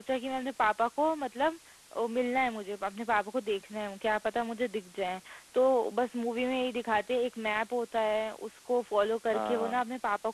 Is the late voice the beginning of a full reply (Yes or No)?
No